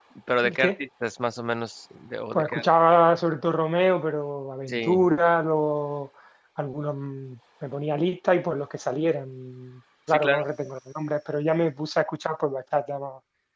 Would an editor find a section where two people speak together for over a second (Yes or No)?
No